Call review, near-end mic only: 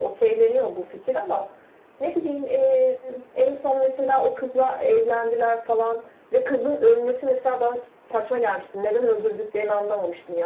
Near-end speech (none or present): none